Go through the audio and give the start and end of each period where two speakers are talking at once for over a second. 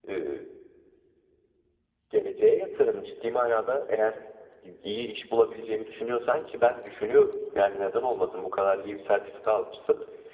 none

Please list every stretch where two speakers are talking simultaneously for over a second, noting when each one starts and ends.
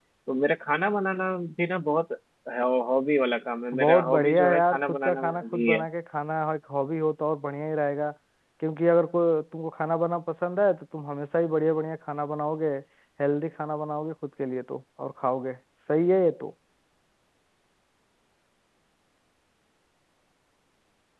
3.7-5.8

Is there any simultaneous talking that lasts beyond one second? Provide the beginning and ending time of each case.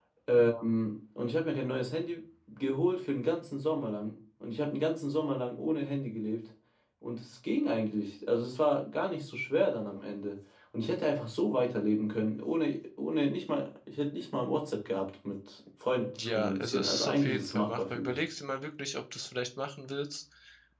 16.1-18.2

